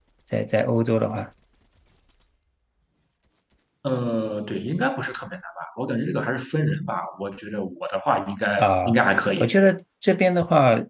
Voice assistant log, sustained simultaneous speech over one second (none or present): none